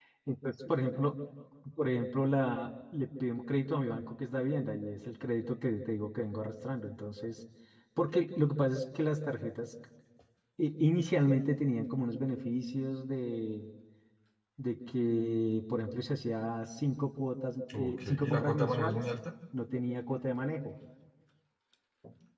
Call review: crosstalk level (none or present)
present